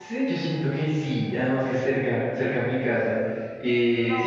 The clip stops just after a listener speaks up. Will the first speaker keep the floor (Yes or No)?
Yes